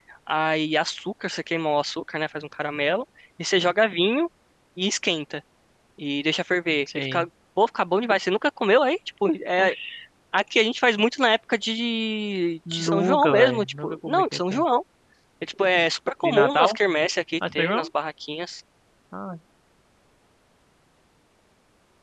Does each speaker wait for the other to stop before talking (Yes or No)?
No